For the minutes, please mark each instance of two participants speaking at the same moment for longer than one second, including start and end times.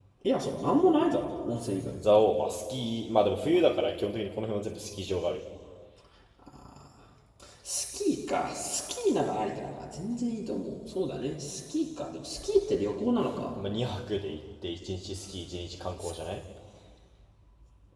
none

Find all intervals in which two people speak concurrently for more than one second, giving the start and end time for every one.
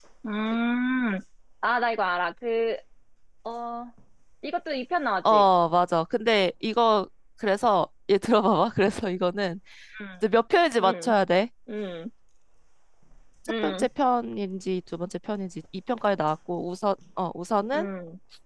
none

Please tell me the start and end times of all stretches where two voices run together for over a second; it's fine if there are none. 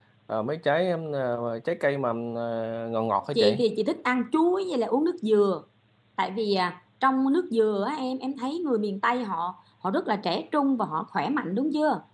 none

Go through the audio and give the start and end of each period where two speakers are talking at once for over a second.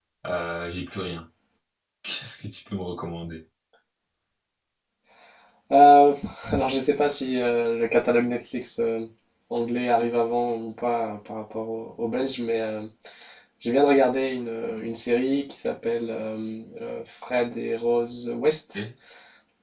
none

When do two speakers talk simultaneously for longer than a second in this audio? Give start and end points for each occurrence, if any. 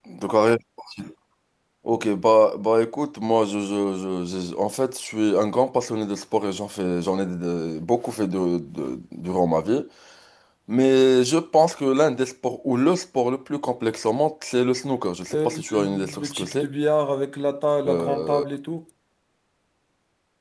15.3-16.7

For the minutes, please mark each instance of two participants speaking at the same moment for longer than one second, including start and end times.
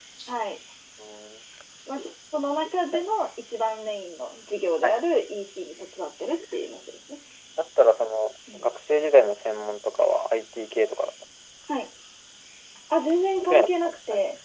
none

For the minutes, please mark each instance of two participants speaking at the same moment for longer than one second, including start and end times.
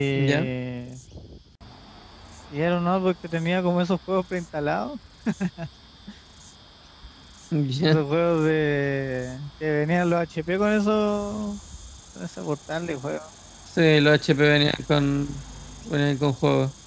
none

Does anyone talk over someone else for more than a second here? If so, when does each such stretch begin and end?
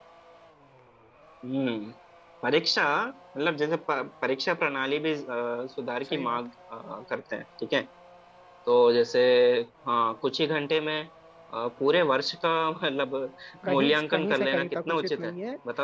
13.7-15.3

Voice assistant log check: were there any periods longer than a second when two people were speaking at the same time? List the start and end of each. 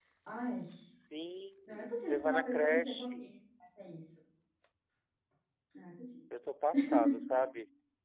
2.0-3.3

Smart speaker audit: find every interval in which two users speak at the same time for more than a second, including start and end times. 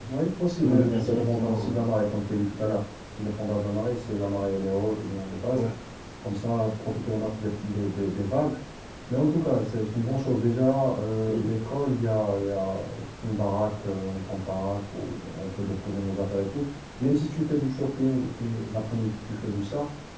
0.6-1.9

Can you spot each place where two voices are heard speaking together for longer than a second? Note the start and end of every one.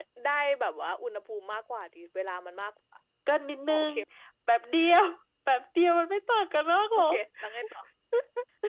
none

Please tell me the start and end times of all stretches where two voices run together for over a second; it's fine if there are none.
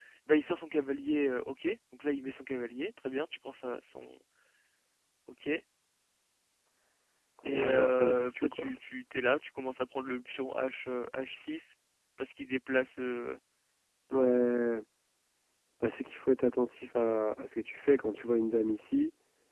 7.5-8.7

